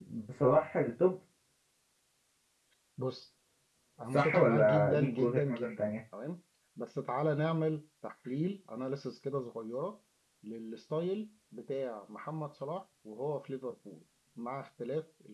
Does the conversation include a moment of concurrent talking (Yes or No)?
Yes